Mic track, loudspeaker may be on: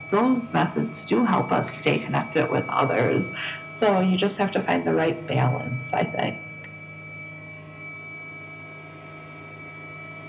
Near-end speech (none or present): none